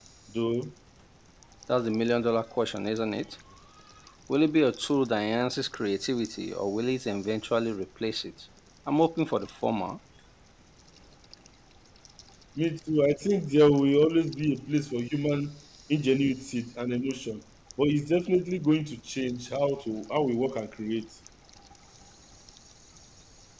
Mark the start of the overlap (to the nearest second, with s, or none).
none